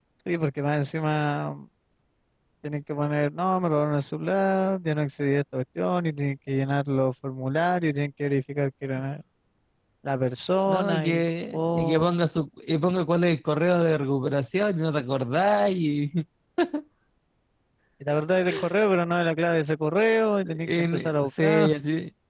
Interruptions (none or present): present